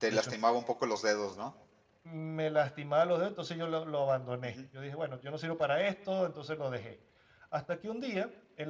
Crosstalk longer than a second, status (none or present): none